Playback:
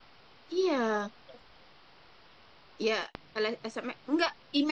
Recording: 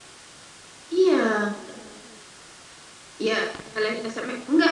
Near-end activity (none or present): none